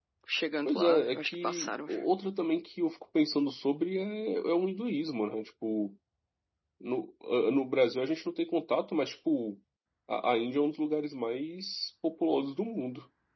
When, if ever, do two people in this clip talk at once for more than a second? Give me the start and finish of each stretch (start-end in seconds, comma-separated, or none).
0.7-2.0